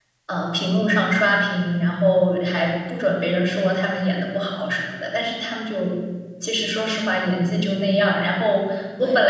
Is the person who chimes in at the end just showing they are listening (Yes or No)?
Yes